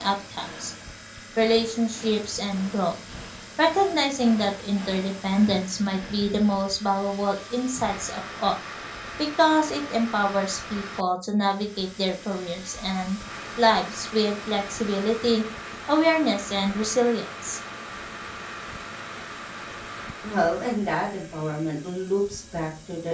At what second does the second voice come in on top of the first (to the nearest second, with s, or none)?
none